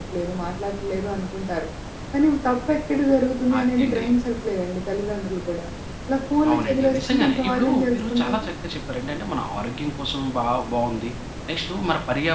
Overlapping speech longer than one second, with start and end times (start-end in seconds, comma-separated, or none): 6.5-8.4